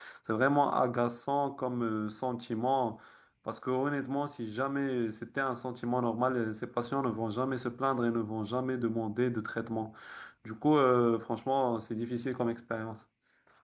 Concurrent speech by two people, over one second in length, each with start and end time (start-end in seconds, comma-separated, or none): none